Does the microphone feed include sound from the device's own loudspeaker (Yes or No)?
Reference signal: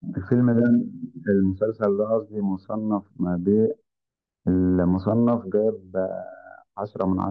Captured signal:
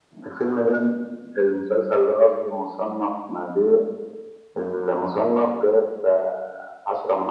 Yes